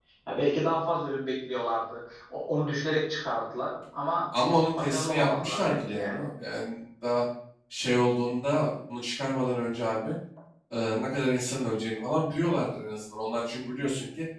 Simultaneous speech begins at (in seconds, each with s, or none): 4.8 s